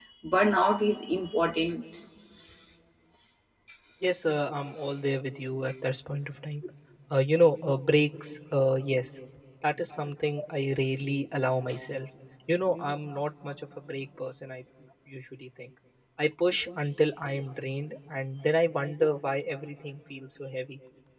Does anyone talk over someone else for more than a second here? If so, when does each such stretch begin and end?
none

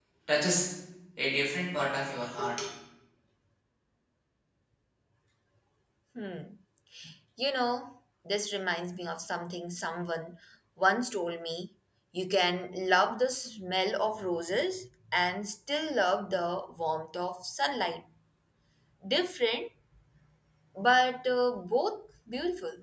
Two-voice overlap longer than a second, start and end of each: none

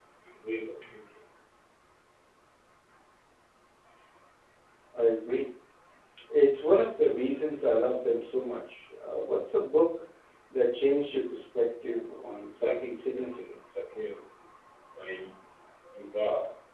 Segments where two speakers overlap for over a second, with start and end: 12.2-13.4

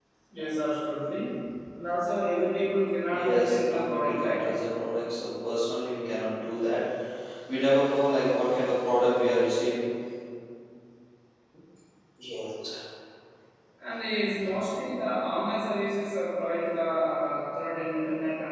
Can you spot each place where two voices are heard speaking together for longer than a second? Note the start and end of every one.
3.1-4.4

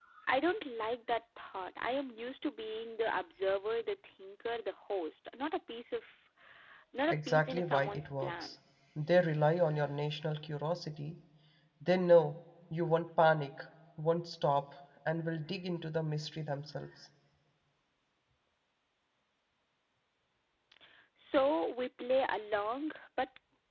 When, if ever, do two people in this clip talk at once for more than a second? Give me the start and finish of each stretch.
7.1-8.6

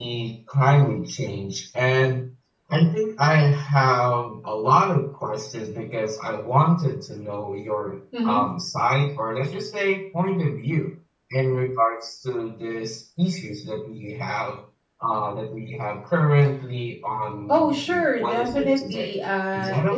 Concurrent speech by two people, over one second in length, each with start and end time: 17.5-19.2

